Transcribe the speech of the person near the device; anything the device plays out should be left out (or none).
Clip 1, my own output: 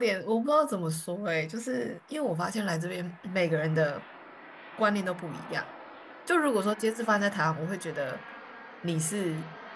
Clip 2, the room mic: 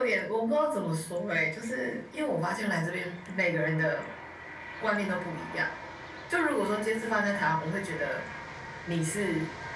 none